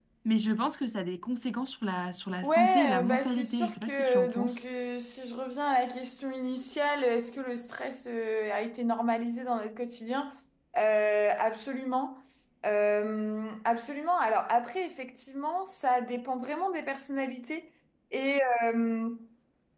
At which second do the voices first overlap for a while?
2.4 s

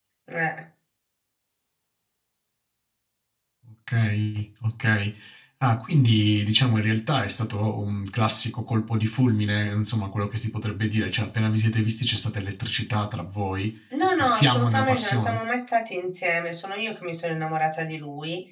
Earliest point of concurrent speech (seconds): 13.9 s

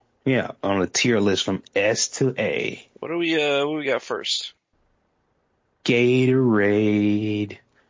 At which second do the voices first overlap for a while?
none

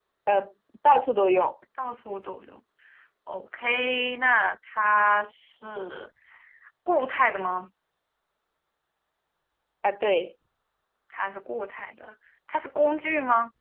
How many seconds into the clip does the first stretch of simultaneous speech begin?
none

